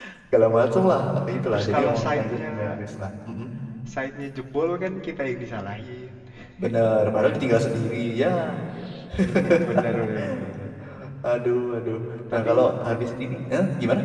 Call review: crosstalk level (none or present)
present